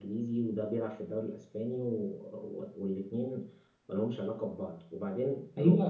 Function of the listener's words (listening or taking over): taking over